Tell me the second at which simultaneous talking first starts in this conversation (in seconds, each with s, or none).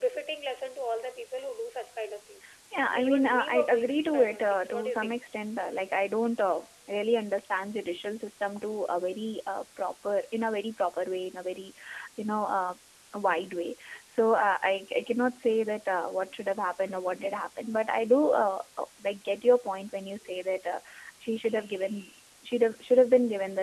2.7 s